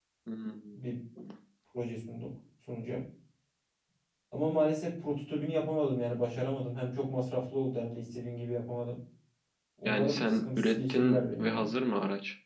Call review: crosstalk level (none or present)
present